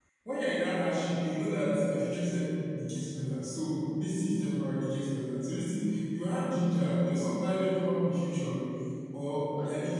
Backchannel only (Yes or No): Yes